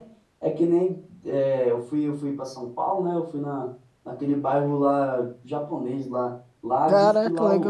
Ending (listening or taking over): listening